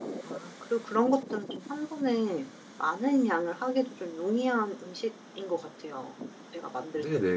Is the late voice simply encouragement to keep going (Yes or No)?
No